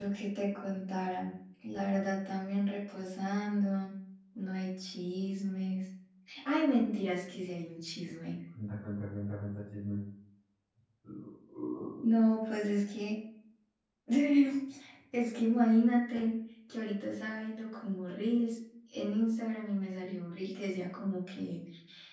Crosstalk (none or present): none